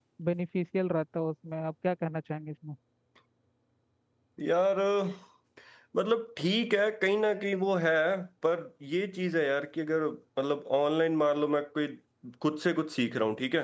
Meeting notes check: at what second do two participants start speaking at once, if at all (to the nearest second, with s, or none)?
none